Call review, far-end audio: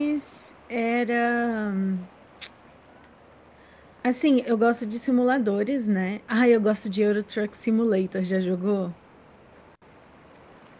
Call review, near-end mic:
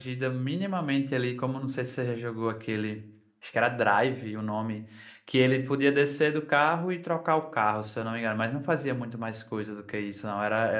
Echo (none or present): none